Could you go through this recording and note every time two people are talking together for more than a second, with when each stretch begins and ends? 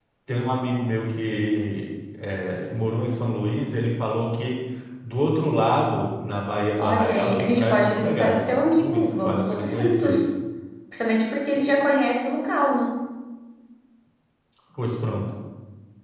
6.8-10.2

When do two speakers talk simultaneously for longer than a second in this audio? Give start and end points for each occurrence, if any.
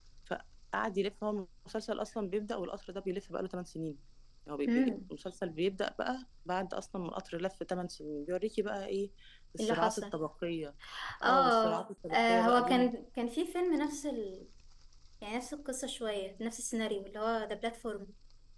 11.2-12.9

